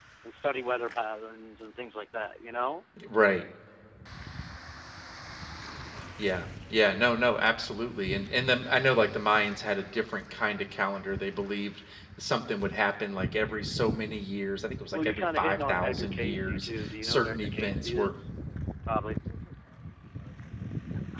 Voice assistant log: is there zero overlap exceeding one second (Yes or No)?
No